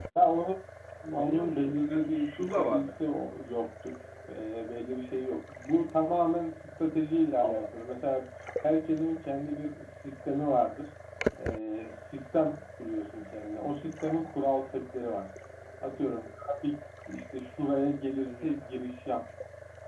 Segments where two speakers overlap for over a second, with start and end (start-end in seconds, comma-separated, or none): 1.1-2.9